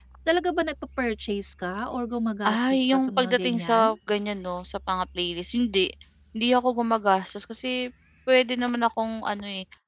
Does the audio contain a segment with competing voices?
Yes, from 2.4 s

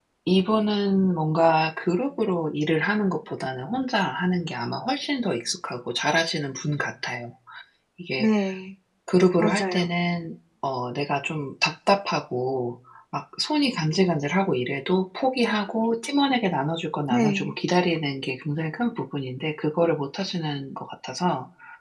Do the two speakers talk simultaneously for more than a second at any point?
No

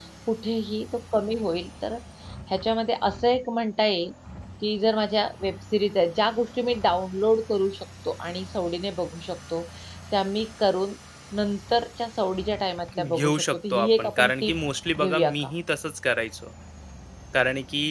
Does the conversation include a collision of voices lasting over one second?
Yes, from 13.0 s

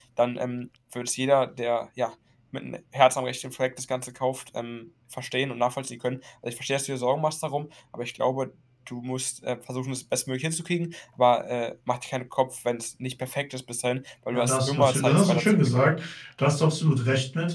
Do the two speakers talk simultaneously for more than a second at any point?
Yes, from 14.3 s

